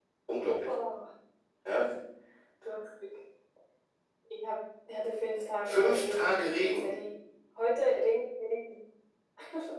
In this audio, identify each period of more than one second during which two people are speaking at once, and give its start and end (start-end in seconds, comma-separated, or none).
5.7-6.9